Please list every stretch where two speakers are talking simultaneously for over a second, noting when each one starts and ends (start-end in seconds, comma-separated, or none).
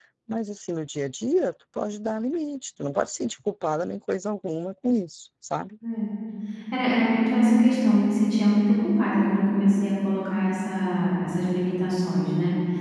none